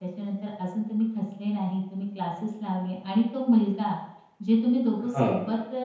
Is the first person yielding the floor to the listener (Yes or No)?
No